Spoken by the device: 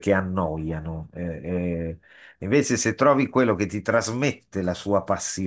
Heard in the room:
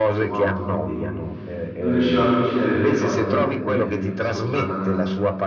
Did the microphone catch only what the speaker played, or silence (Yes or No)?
No